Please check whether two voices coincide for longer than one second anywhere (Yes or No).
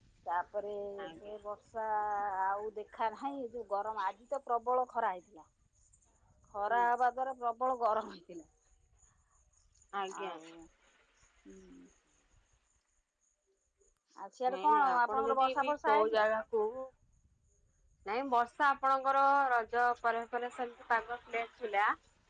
Yes